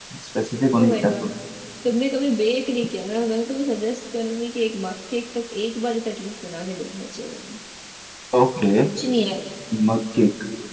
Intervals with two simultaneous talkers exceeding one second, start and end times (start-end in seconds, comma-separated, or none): none